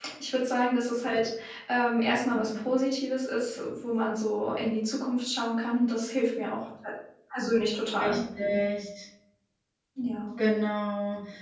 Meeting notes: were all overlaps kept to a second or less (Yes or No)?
Yes